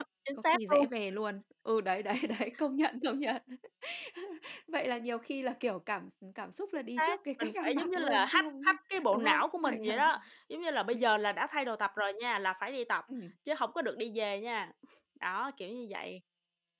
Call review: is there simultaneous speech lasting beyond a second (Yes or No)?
Yes